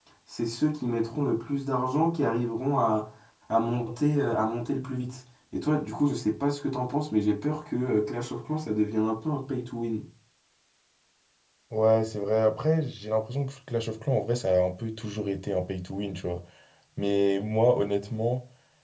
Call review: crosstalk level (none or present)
none